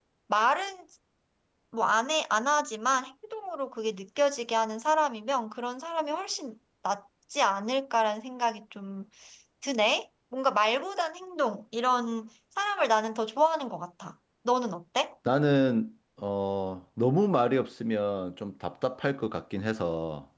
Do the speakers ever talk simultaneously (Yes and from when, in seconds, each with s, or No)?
No